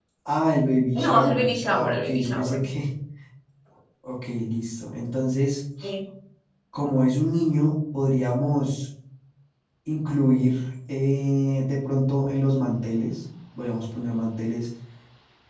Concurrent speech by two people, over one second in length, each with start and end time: 1.0-2.6

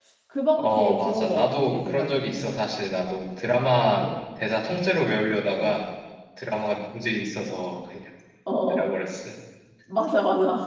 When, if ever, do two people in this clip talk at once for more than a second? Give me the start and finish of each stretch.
0.6-2.2

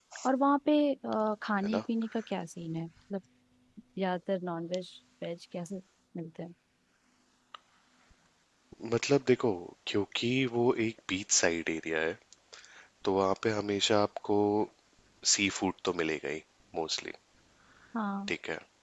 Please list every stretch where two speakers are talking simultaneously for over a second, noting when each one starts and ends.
none

